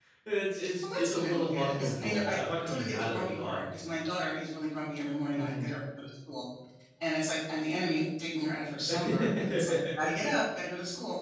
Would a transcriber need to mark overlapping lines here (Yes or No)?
Yes